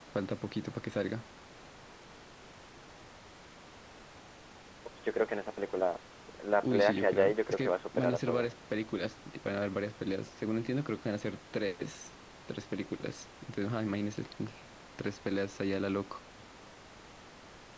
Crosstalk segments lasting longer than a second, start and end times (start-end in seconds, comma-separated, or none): 6.6-8.5